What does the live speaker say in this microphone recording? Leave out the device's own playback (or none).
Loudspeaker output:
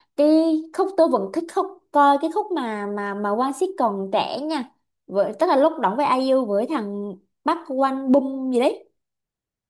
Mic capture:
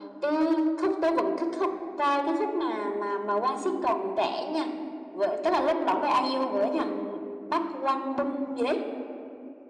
none